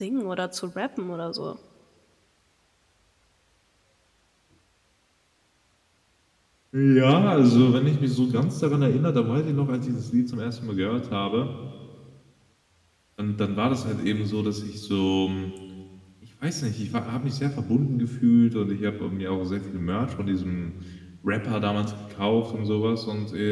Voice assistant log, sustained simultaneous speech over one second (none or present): none